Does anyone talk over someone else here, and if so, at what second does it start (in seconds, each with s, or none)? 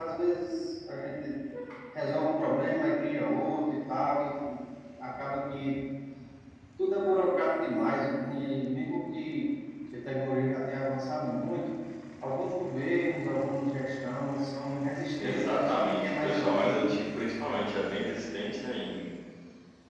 15.2 s